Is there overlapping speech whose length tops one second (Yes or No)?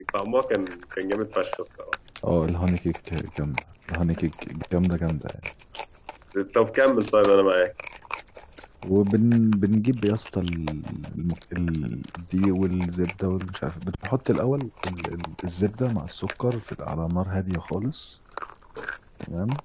No